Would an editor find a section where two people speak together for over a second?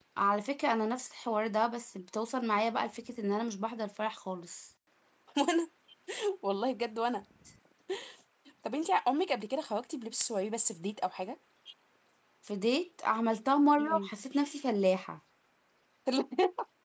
No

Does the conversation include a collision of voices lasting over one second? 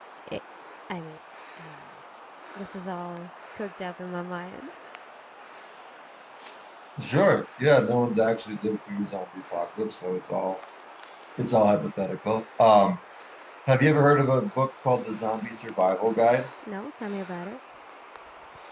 No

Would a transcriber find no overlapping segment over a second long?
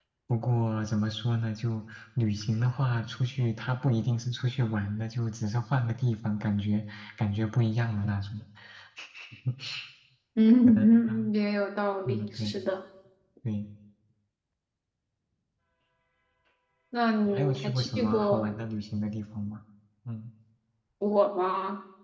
No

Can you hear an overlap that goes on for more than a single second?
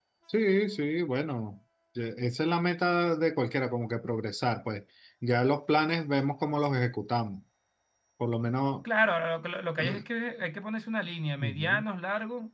No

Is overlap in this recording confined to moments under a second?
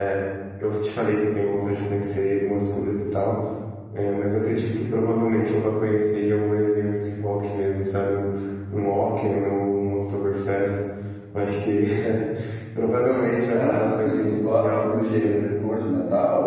No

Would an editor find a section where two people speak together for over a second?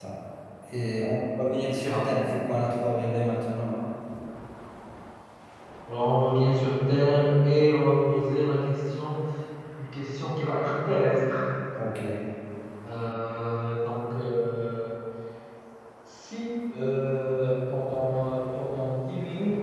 No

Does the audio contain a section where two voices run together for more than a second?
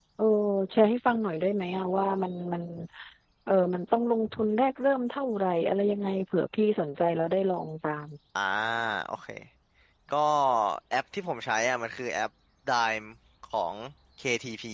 No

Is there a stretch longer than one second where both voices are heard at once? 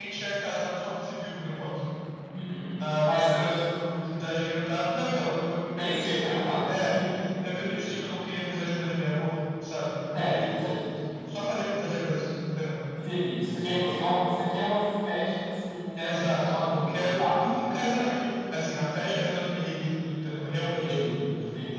Yes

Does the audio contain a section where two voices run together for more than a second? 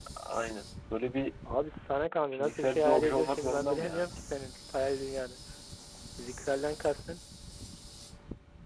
Yes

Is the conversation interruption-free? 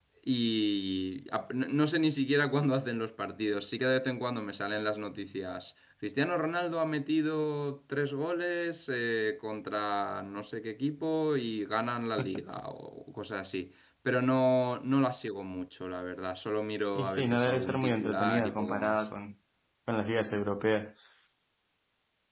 No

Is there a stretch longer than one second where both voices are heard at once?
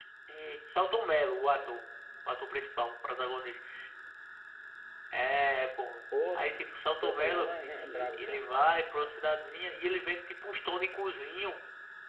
Yes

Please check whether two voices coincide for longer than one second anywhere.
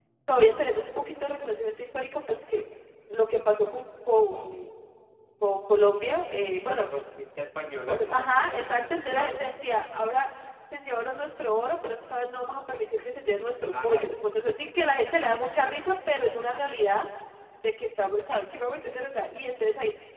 Yes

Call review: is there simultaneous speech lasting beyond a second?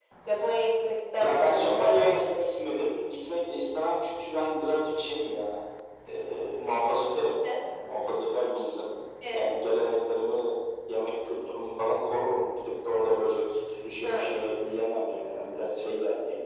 Yes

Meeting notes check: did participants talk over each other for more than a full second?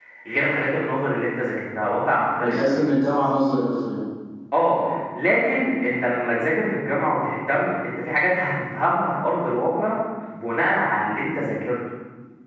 No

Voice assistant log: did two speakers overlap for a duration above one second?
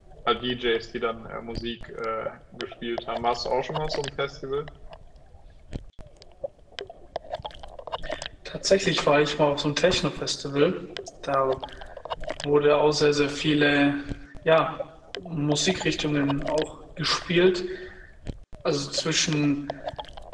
No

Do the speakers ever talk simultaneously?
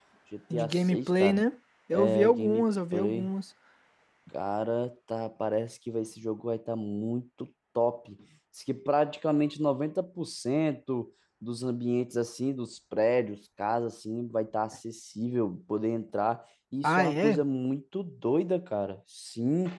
Yes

